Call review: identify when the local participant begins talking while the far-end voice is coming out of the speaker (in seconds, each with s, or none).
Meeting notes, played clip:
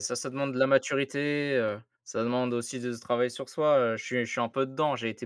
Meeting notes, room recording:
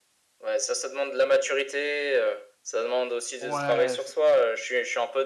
3.4 s